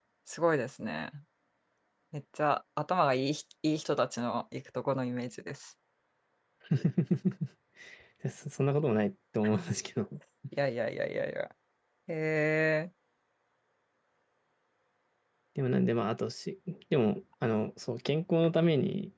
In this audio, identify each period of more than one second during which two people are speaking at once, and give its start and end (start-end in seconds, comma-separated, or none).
none